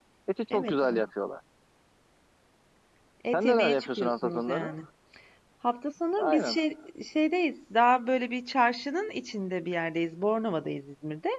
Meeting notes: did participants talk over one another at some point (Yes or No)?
Yes